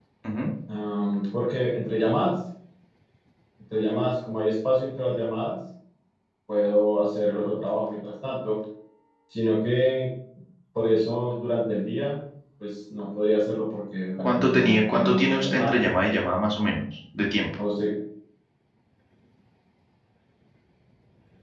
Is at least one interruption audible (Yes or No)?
Yes